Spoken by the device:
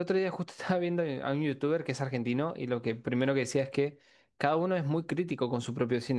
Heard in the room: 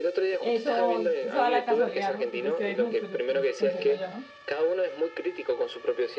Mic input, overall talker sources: both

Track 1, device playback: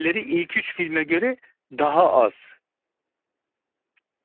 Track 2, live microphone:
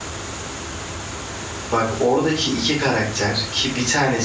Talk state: user only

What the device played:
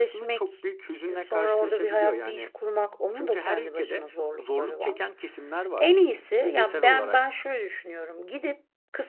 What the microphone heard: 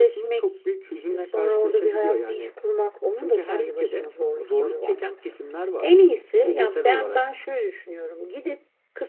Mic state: echo only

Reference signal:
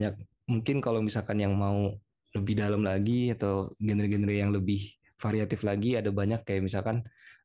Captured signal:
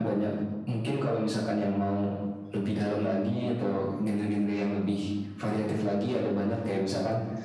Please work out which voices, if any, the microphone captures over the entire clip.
echo only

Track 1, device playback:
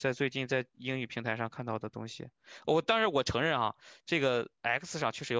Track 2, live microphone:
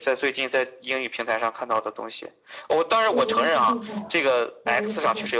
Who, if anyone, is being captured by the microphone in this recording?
both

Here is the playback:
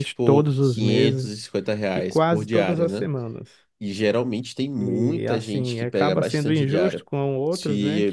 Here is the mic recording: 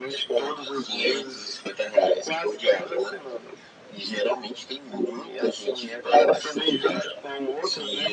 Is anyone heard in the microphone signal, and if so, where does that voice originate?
echo only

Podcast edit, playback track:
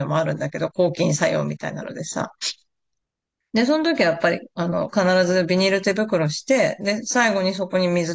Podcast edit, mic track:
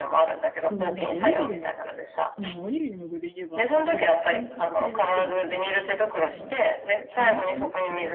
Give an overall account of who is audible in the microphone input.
both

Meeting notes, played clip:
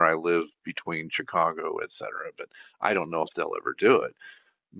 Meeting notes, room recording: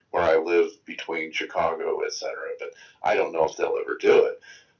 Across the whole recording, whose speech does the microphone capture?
echo only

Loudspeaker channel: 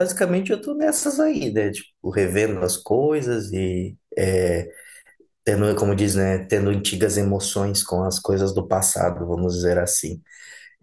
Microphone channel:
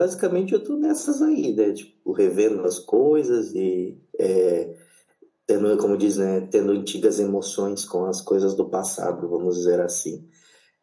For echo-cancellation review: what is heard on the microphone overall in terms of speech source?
echo only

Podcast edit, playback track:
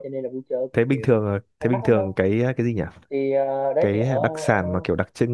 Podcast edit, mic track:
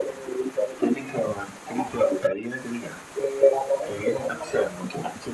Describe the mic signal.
echo only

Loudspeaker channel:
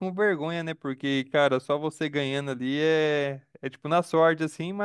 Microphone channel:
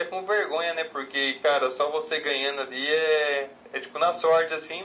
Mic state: echo only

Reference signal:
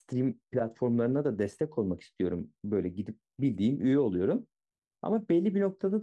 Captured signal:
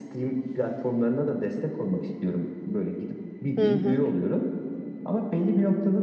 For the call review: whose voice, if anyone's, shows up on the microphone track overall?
both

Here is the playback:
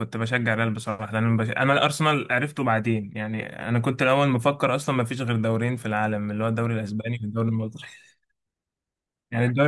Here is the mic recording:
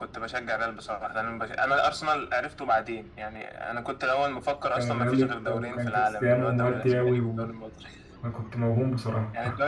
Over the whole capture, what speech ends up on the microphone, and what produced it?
both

